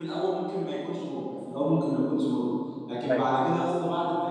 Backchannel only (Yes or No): Yes